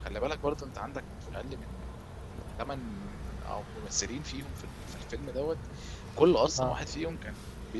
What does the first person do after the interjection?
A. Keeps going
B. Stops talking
A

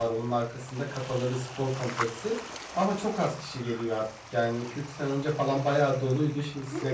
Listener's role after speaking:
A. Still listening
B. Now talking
B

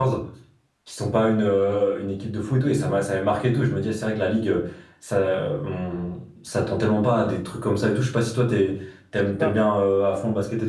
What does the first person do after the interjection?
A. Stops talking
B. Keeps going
B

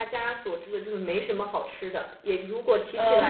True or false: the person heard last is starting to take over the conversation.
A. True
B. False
B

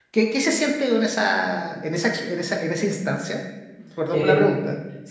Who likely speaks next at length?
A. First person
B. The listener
B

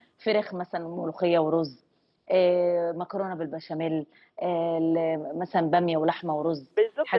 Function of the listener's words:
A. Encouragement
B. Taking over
B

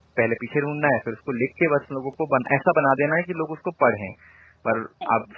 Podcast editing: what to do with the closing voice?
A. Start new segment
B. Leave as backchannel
B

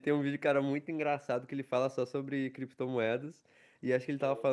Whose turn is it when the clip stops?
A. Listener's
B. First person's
B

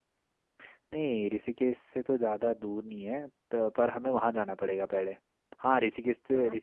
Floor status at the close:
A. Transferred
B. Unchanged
B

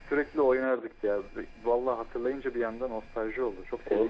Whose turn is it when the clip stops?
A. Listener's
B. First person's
A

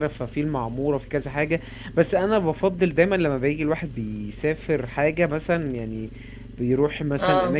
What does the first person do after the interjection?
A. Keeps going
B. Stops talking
A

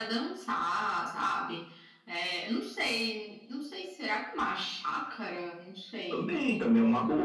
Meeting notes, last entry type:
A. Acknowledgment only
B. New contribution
B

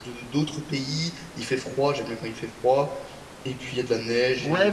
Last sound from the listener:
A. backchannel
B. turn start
B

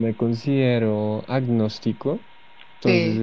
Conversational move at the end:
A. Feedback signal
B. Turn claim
A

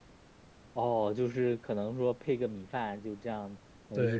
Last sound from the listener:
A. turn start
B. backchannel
A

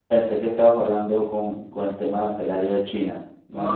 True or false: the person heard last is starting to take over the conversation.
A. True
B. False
A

